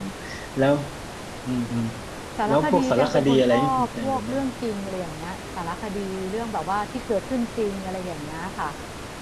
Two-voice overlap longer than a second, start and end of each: 2.5-4.5

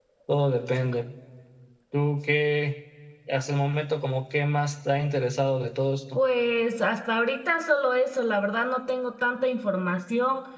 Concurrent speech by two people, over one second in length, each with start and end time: none

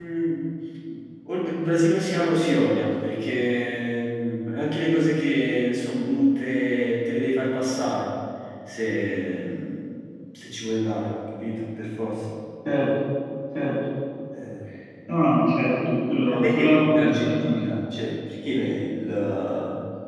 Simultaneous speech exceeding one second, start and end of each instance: 16.2-17.6

